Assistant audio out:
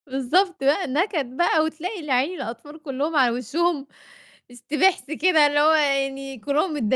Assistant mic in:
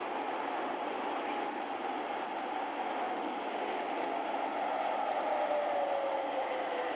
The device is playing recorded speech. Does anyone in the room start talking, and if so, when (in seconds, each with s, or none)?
none